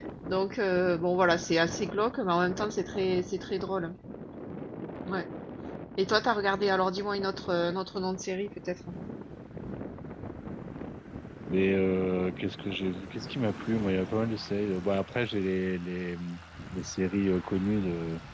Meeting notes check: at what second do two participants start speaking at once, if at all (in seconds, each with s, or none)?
none